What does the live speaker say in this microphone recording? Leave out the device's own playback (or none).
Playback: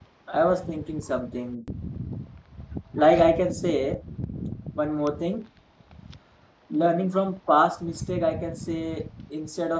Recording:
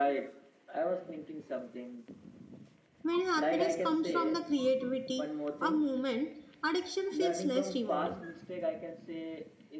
When happiness comes from the creativity or movement, addiction feels less rewarding.